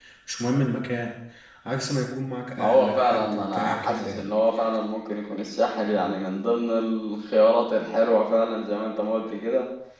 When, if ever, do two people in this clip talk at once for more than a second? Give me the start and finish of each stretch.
2.6-4.3

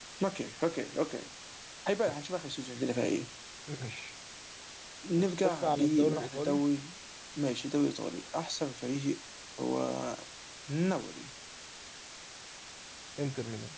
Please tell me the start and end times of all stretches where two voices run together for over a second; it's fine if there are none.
5.2-6.6

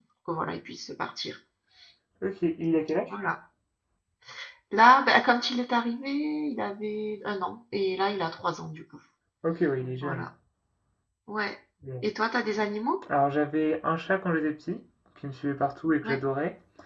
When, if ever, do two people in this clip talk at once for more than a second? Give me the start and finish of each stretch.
none

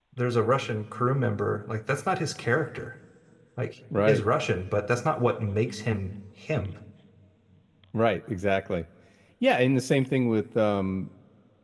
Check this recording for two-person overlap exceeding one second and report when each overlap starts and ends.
none

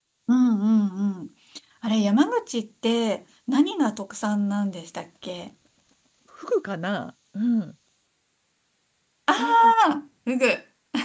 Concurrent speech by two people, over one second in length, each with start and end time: none

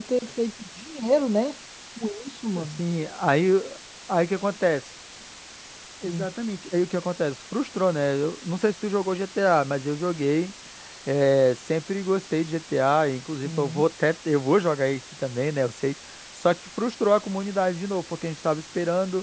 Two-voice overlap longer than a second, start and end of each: none

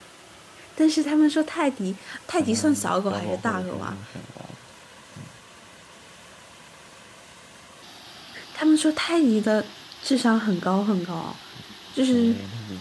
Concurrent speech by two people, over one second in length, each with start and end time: 2.4-4.0

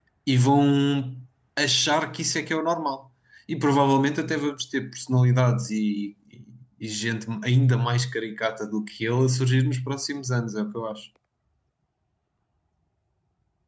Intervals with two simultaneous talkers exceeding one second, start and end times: none

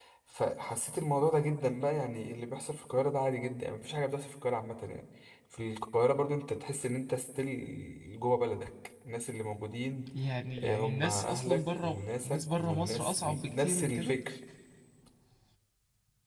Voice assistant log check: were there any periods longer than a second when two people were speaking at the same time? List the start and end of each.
10.6-14.2

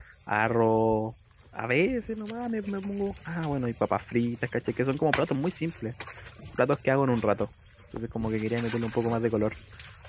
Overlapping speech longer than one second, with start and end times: none

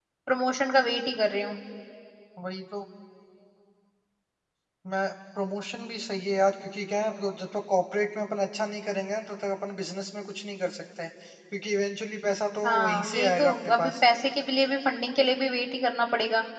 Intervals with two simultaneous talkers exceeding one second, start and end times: 12.6-13.9

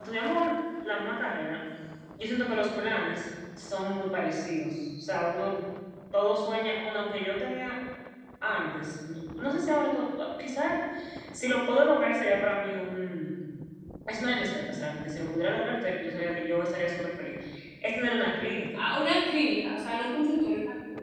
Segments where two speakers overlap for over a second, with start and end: none

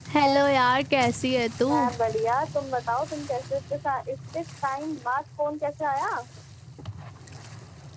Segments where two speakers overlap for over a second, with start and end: none

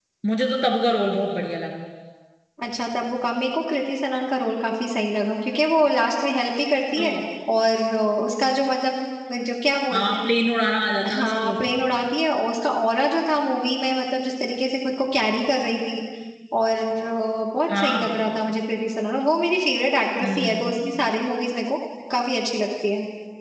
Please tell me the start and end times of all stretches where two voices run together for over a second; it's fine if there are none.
none

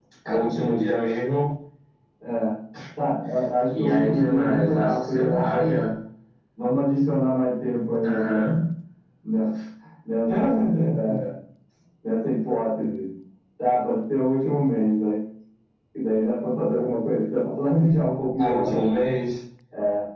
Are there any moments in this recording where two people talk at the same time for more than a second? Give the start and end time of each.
3.8-5.7

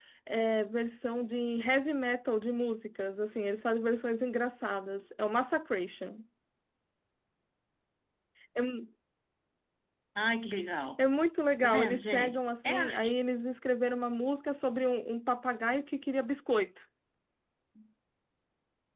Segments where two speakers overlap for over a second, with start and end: 11.6-13.1

